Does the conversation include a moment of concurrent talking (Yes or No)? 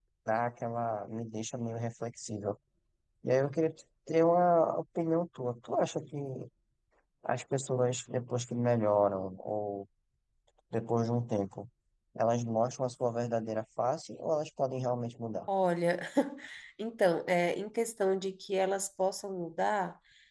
No